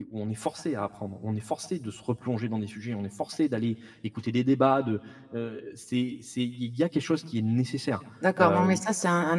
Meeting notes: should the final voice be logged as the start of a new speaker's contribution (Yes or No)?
Yes